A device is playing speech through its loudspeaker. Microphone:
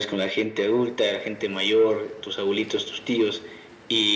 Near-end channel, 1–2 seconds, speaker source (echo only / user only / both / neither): echo only